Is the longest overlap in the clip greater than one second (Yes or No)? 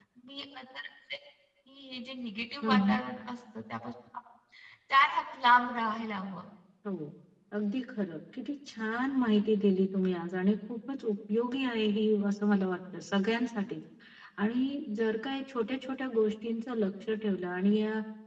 No